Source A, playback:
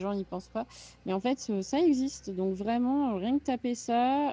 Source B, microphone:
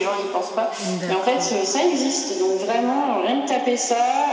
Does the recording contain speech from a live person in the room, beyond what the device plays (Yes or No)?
Yes